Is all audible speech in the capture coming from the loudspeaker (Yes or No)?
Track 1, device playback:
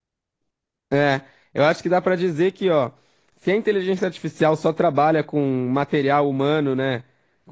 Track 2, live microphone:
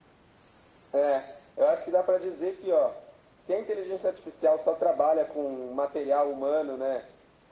Yes